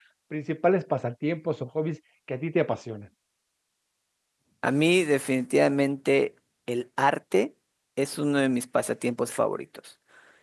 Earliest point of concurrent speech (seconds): none

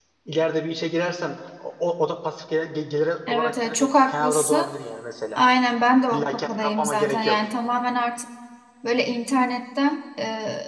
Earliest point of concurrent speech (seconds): 3.3 s

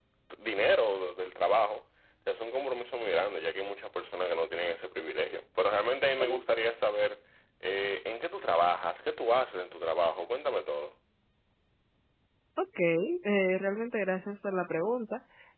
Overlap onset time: none

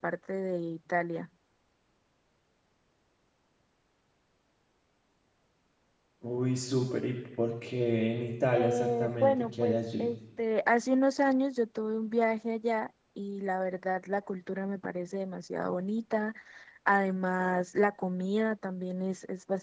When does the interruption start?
8.5 s

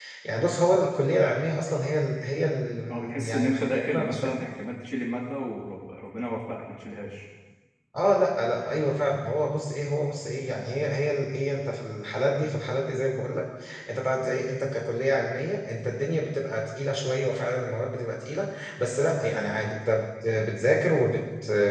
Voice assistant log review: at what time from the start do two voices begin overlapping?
2.9 s

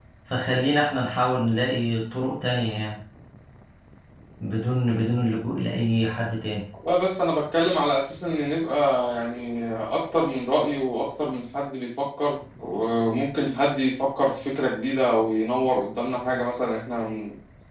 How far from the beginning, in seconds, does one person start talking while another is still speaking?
none

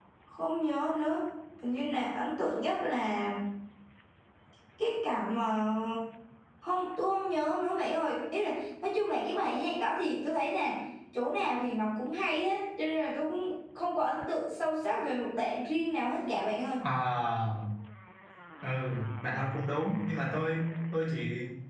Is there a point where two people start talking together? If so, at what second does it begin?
none

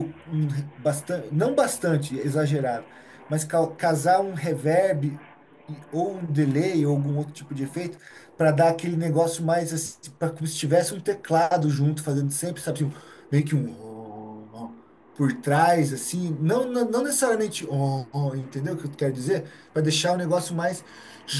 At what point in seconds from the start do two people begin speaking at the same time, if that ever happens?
none

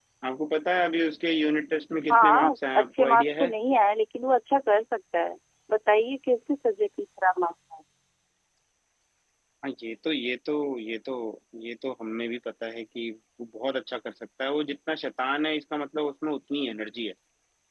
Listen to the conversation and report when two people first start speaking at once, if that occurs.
2.1 s

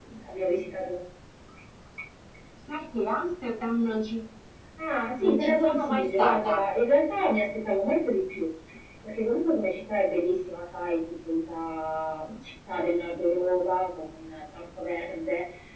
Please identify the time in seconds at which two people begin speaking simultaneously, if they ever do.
5.2 s

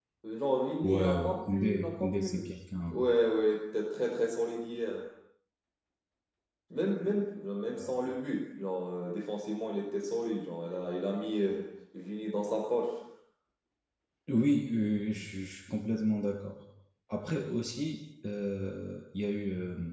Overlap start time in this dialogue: 0.8 s

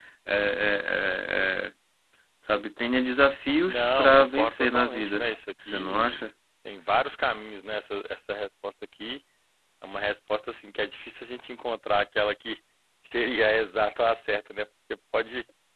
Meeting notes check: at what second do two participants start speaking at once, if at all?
3.7 s

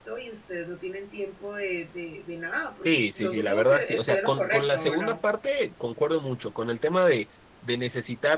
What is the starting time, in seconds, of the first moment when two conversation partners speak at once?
2.9 s

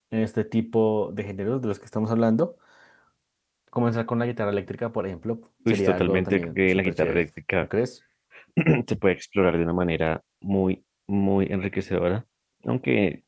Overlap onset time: 5.7 s

